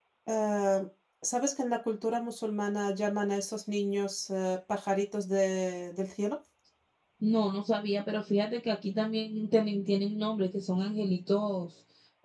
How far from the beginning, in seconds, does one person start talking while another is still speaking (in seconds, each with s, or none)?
none